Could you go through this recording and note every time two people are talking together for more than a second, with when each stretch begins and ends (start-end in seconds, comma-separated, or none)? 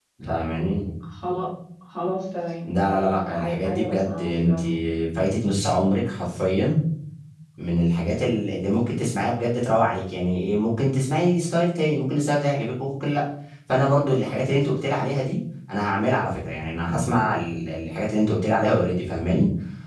2.8-4.6